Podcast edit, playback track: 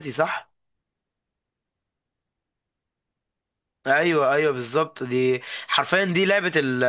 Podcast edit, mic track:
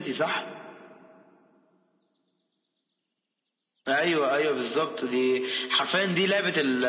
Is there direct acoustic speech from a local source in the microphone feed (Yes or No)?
No